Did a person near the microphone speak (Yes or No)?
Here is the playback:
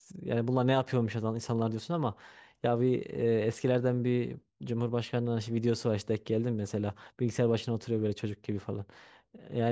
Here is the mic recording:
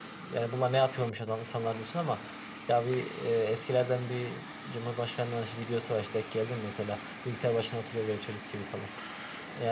No